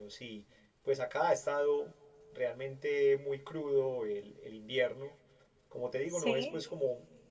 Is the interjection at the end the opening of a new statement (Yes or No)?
No